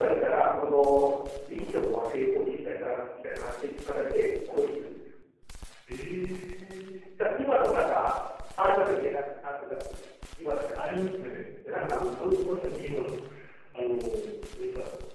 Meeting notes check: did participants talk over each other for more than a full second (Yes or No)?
No